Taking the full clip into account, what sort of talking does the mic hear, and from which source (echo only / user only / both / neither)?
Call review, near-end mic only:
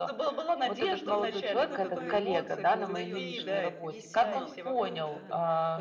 both